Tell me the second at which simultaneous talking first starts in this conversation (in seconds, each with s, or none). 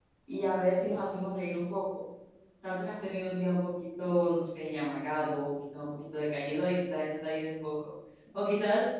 none